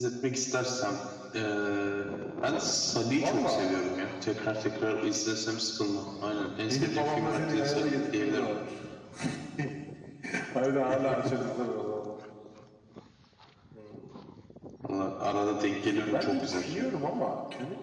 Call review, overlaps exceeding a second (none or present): present